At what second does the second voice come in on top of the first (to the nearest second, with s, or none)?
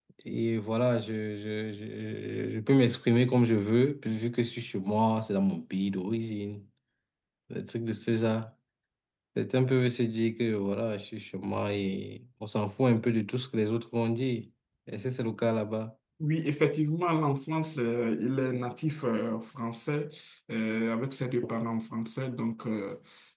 none